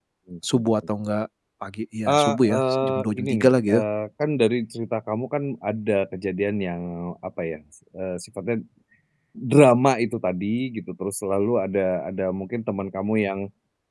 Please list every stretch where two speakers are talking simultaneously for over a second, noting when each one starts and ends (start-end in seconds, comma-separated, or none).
2.1-3.8